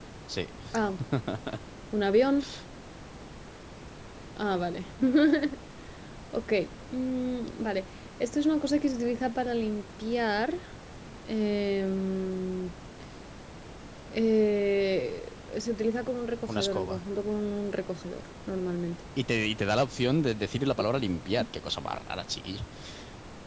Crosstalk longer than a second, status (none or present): none